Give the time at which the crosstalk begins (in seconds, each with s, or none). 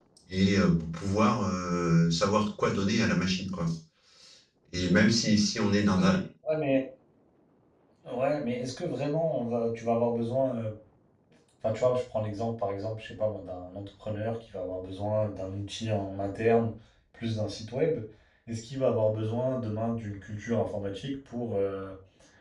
none